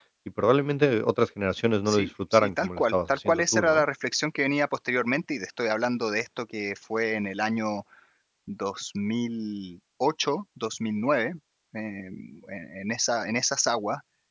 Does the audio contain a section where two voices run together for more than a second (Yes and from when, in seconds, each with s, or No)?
Yes, from 1.9 s